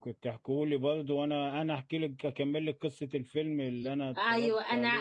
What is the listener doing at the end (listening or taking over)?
taking over